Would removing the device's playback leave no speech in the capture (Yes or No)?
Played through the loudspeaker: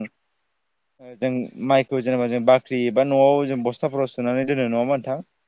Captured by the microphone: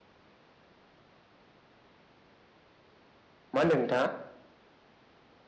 No